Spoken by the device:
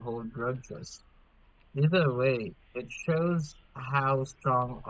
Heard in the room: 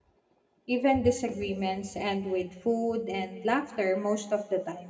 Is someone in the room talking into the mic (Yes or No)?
Yes